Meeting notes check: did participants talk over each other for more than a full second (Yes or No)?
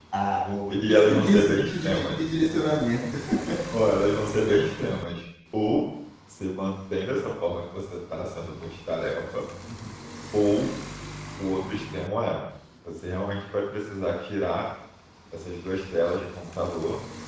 Yes